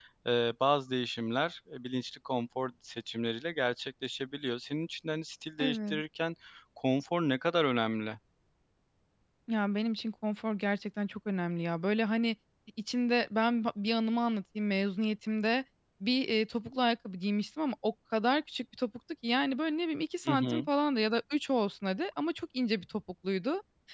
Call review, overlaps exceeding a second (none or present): none